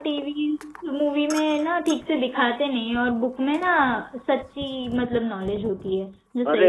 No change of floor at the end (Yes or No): No